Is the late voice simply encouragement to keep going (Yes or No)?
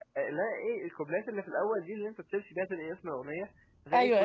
Yes